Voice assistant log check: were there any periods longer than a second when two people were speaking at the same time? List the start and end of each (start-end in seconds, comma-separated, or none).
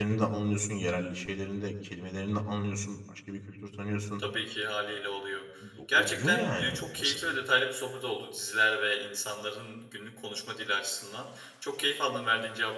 6.0-7.2